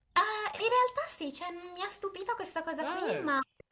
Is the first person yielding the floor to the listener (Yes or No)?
No